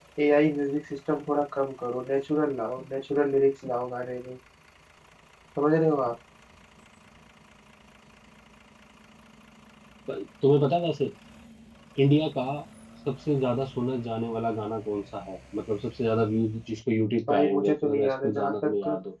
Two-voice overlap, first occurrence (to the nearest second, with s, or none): 17 s